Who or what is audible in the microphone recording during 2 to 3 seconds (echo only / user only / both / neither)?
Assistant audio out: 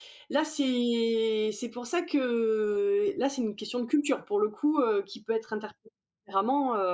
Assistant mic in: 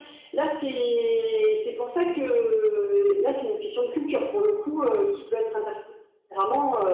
echo only